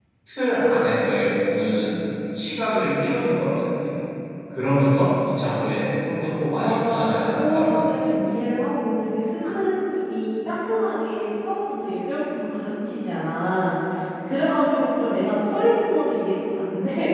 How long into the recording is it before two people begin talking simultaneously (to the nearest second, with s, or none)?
7 s